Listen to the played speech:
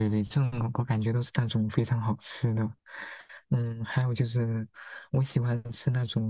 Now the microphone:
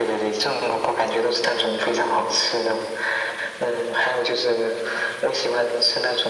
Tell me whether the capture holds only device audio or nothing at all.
Yes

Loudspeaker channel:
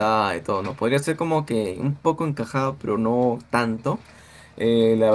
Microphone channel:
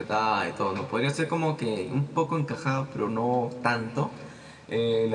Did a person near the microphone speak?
No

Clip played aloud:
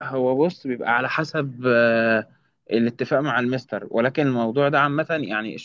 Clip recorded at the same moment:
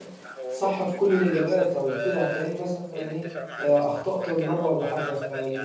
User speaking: Yes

